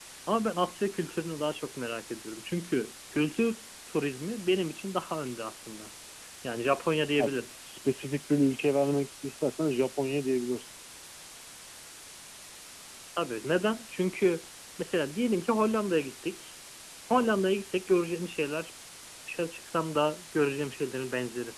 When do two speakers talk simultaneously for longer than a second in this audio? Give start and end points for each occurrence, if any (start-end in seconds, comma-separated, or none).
none